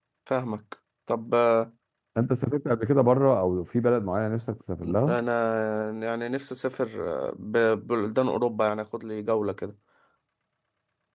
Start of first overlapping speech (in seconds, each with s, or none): none